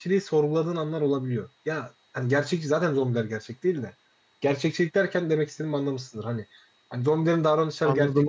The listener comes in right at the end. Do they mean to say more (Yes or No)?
No